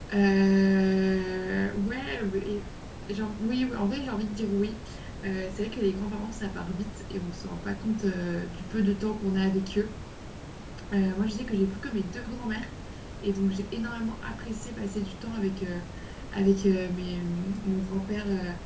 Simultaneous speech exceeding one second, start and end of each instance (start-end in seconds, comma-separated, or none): none